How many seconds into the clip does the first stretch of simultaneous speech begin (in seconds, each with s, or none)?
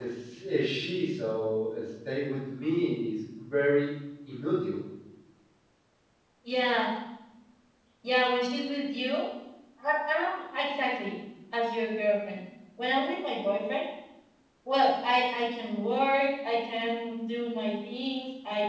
none